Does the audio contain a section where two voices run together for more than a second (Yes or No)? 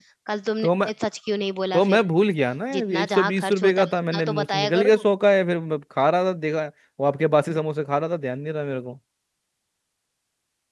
Yes